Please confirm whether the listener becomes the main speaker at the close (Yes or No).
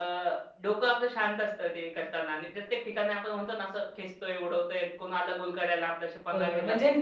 Yes